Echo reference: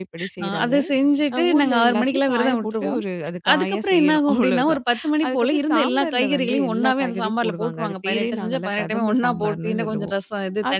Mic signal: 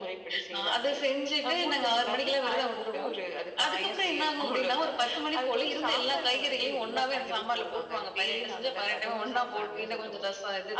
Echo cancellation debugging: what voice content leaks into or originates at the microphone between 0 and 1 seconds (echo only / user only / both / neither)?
echo only